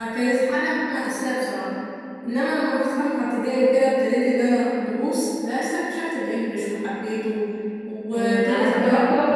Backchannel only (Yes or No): No